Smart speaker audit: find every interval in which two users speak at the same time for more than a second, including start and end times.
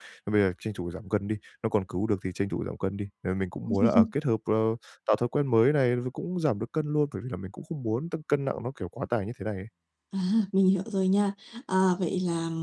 none

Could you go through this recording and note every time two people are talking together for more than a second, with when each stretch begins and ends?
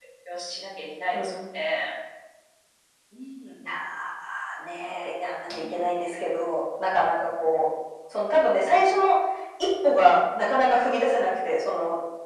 none

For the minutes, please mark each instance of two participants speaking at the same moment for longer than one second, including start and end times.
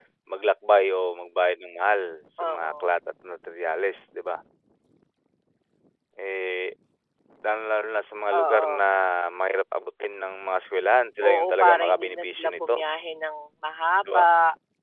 11.2-12.8

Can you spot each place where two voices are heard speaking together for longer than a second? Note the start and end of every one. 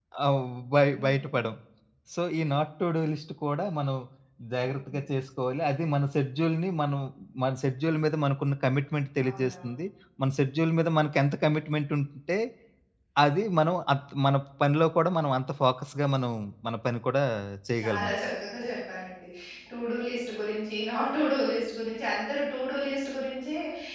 none

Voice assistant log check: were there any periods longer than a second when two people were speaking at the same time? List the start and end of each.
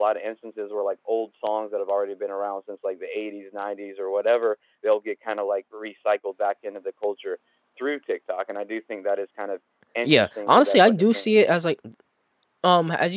10.0-11.6

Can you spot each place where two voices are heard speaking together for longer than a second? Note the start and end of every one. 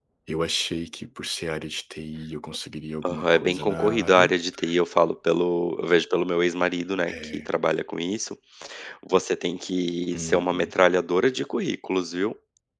3.0-4.3

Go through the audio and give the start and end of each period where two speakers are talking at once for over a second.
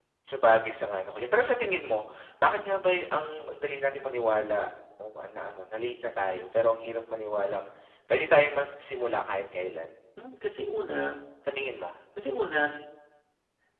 none

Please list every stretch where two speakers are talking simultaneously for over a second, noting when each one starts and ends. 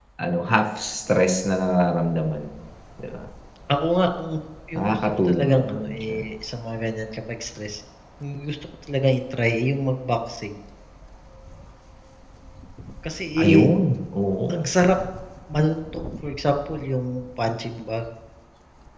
4.8-6.0

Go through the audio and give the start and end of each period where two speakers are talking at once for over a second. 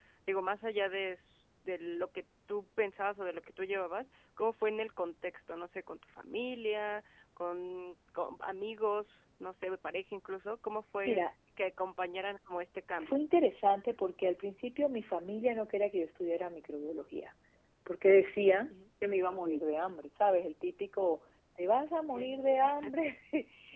none

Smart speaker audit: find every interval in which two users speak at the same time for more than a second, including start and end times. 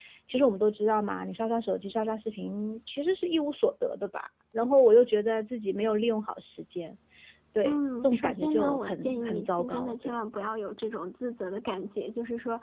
7.6-10.1

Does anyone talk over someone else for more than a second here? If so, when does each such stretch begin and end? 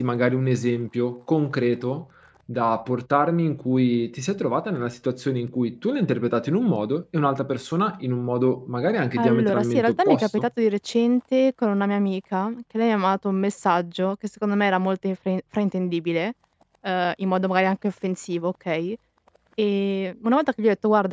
9.2-10.4

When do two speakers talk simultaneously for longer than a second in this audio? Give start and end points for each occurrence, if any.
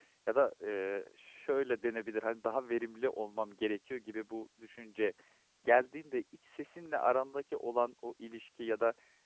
none

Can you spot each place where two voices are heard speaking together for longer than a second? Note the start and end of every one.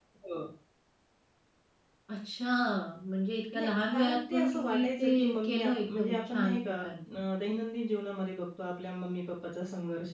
3.6-6.8

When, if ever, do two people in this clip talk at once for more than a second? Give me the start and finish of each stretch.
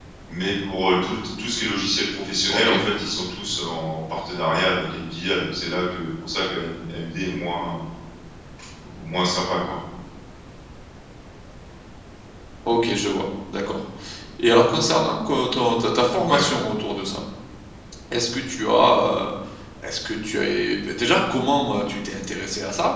none

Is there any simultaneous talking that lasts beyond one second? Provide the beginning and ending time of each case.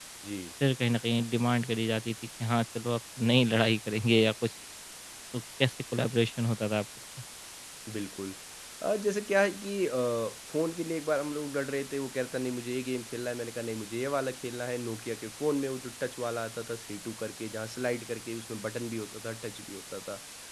none

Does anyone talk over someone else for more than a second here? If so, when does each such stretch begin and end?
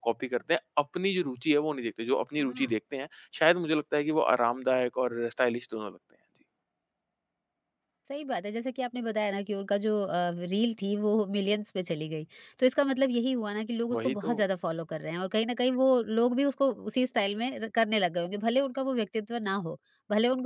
none

